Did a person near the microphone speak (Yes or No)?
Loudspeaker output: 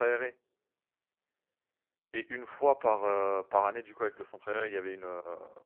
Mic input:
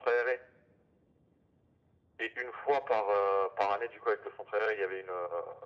No